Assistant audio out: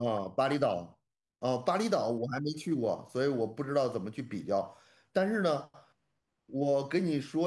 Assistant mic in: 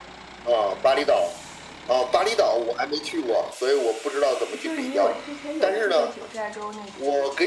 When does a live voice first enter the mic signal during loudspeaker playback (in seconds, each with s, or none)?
4.6 s